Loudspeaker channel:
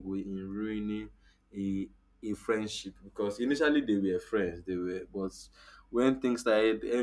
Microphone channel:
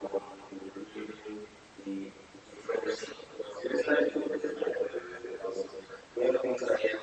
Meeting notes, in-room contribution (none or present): none